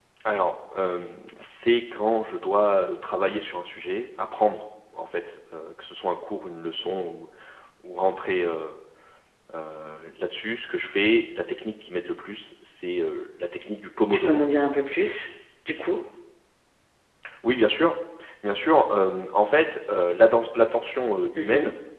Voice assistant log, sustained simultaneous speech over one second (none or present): none